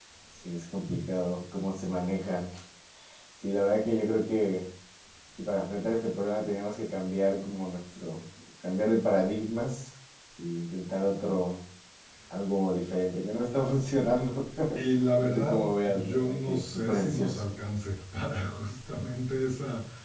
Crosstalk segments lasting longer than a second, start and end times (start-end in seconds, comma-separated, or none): 15.2-17.5